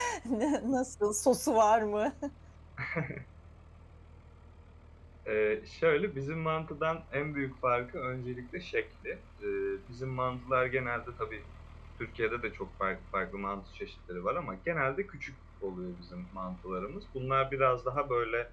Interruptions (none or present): none